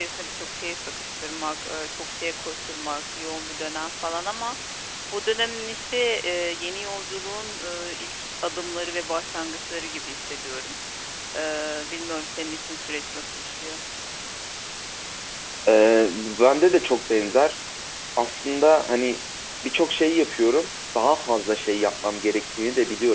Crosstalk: none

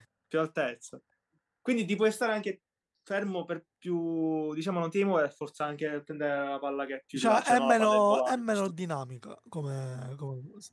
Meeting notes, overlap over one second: present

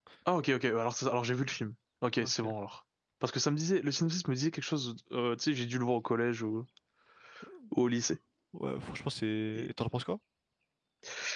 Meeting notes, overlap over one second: none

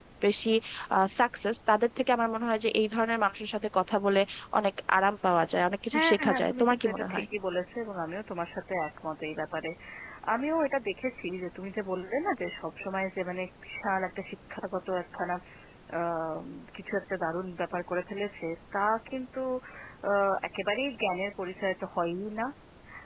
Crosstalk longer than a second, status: present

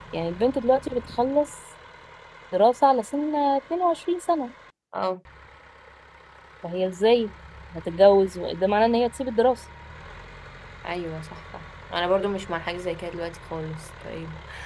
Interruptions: none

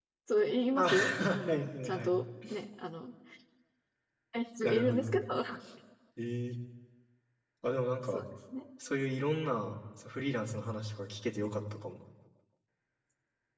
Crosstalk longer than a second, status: present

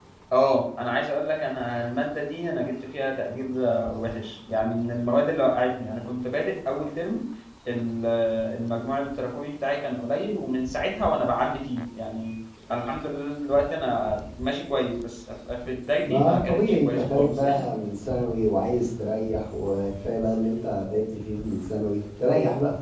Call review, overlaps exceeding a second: present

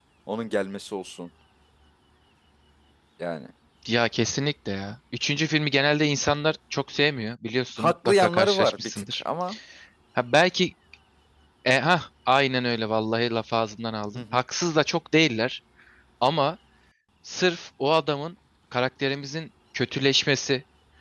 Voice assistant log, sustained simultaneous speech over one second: present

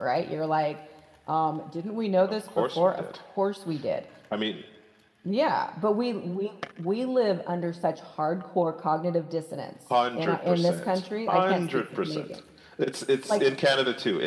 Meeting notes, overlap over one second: present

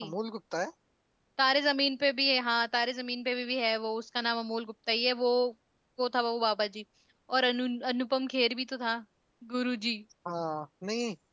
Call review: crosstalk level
none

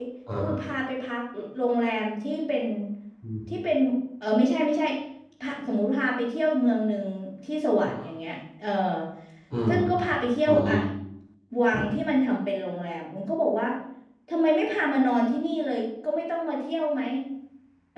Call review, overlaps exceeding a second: none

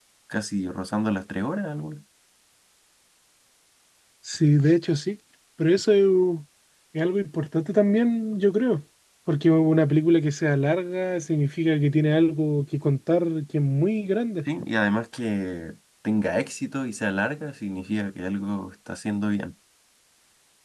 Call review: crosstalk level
none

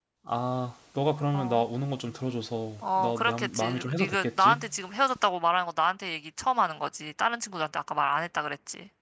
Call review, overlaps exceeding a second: present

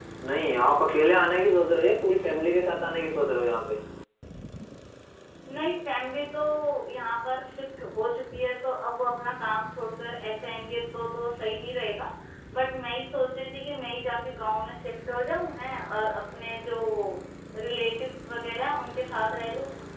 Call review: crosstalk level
none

